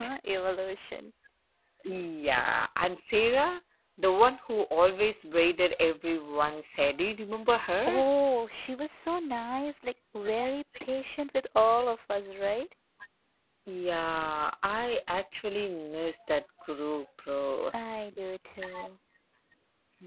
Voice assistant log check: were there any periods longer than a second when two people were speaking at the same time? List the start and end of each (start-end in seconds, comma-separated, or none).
none